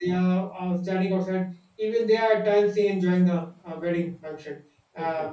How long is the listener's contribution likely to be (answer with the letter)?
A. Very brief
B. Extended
A